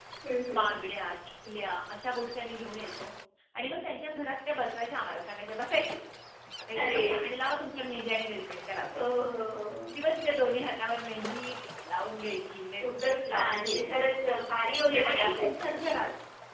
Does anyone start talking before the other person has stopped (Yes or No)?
Yes